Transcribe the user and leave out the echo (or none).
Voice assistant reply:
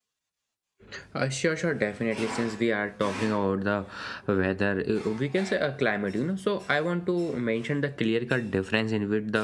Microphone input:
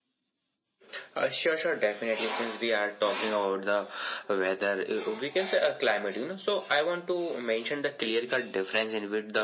none